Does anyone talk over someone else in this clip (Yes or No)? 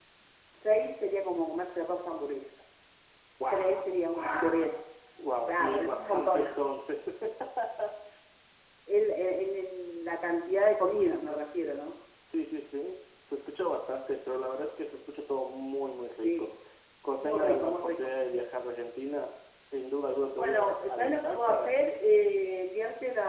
Yes